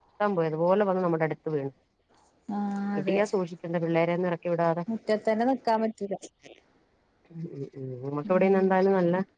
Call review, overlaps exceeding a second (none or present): none